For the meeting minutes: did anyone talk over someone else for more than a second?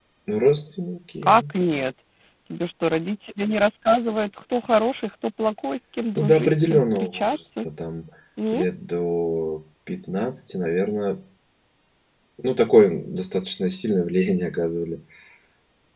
Yes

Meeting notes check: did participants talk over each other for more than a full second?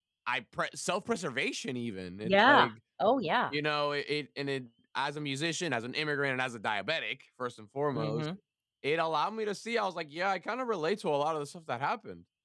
No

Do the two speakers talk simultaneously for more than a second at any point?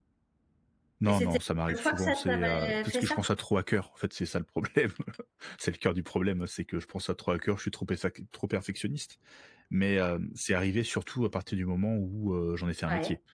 Yes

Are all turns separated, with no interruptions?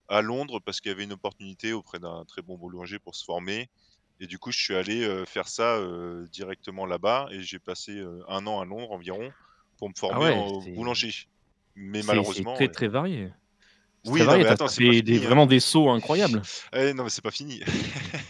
No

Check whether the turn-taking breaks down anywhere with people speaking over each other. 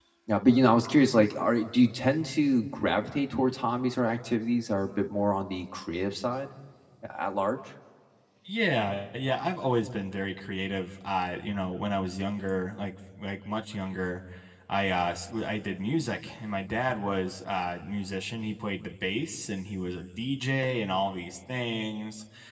No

